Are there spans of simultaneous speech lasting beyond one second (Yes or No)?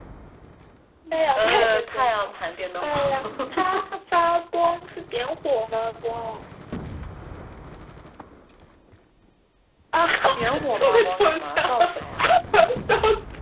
Yes